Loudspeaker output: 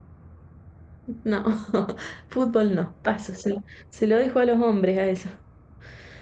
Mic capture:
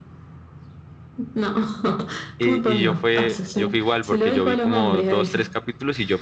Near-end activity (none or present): present